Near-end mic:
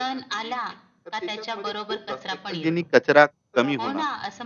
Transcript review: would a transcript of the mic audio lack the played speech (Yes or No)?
No